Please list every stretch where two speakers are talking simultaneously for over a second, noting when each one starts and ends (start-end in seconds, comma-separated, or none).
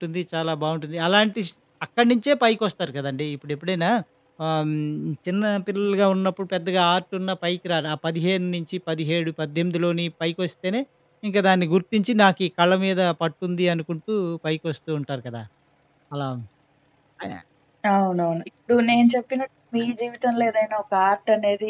none